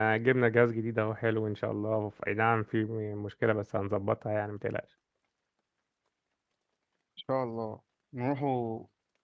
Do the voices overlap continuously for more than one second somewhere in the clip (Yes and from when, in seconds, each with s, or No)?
No